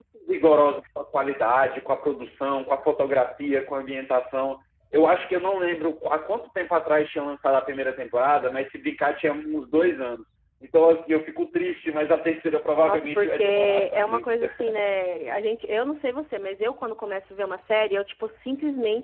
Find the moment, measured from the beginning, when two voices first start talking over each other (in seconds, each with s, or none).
12.8 s